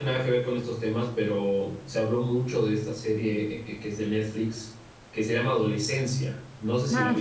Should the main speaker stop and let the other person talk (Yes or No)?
Yes